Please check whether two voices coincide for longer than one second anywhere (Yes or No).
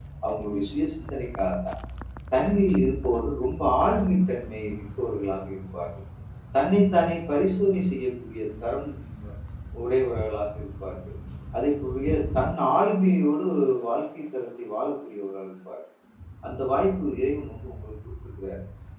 No